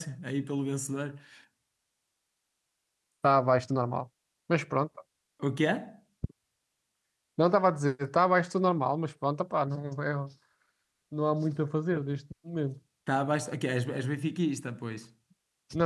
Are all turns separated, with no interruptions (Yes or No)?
Yes